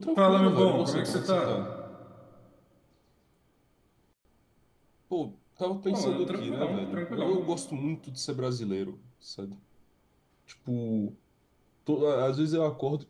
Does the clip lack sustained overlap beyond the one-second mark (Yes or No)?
No